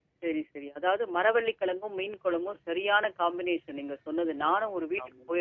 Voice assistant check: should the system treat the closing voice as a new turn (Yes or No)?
No